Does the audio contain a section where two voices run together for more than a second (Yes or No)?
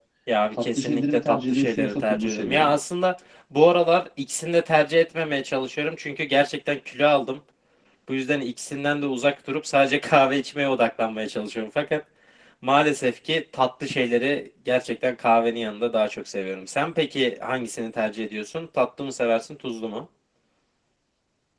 Yes